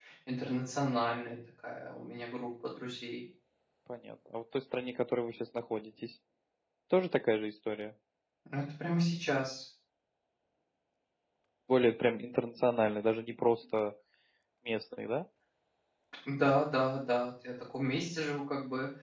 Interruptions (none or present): none